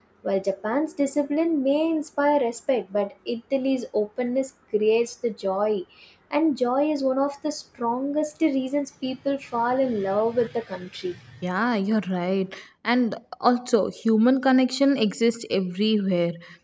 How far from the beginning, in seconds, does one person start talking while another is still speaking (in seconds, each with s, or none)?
none